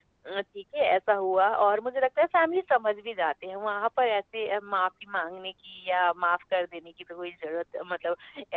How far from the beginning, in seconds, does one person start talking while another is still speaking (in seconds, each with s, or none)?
none